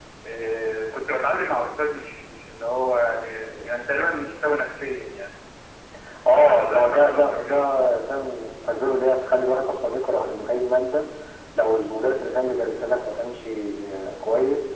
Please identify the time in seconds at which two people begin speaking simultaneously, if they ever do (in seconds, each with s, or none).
6.3 s